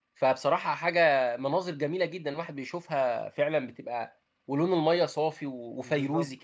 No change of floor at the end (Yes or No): No